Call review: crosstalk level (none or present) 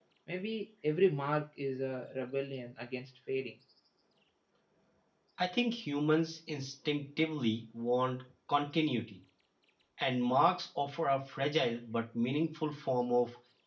none